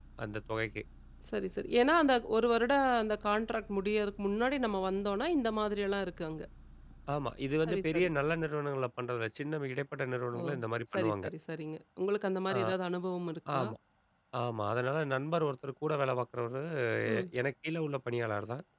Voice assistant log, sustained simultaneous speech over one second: none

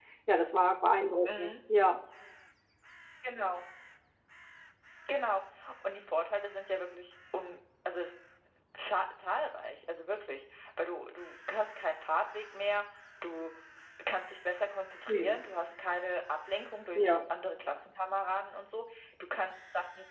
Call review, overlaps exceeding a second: none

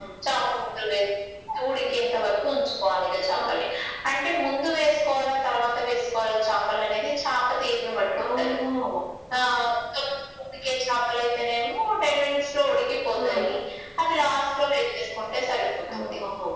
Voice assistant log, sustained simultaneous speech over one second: none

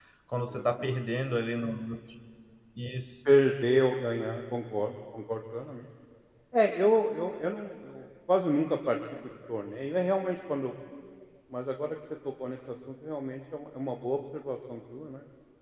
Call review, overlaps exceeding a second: none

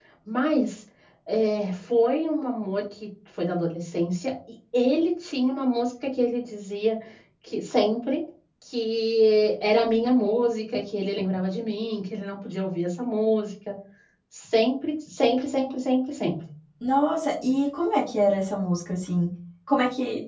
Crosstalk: none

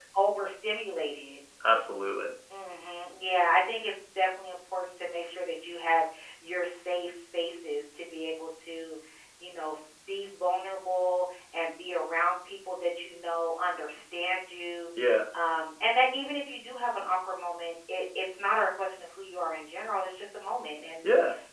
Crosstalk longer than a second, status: none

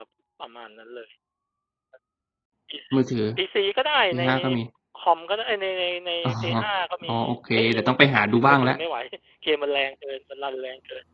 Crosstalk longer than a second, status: present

